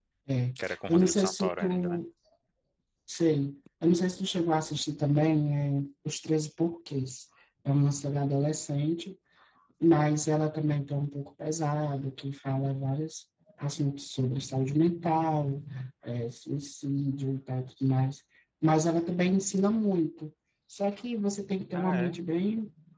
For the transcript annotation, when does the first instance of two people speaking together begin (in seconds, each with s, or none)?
0.6 s